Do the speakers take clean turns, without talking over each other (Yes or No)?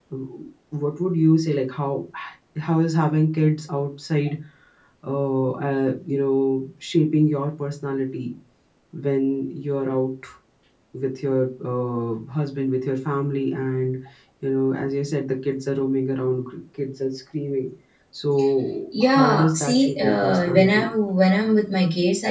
No